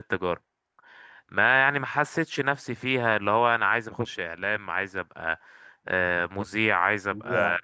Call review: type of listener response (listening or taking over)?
listening